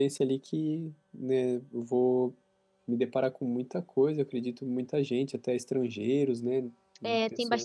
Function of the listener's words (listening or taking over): taking over